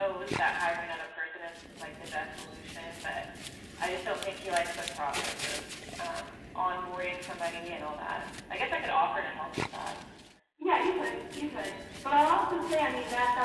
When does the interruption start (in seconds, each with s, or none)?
none